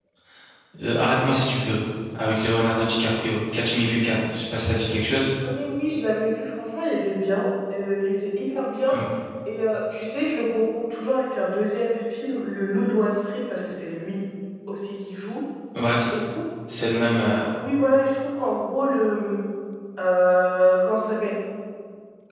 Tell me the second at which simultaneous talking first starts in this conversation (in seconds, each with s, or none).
none